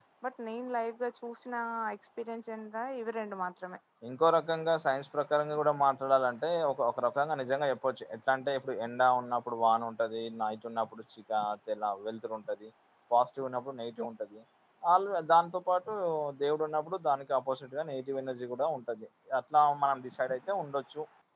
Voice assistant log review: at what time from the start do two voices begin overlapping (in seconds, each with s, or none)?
none